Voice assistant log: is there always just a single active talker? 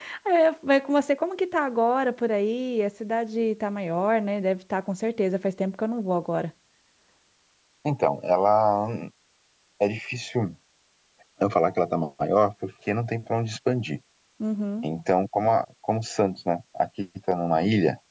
Yes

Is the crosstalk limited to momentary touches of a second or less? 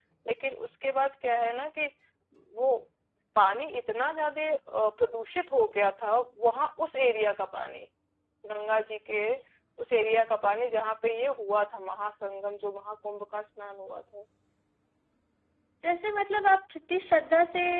Yes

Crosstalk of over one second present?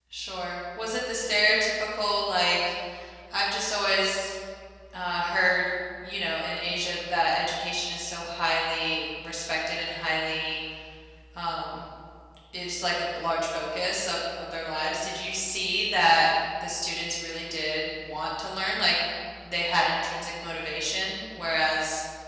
No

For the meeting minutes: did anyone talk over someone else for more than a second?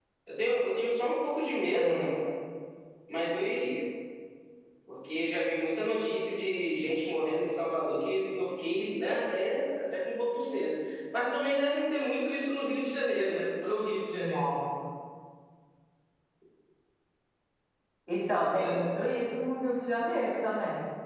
No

